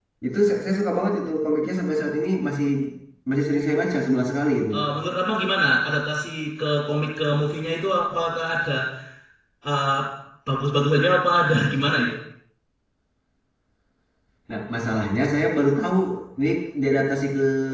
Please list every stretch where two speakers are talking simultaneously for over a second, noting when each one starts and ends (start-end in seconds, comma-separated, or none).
none